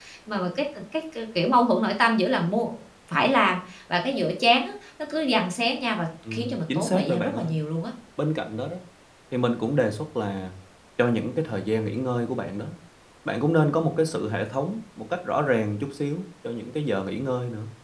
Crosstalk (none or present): present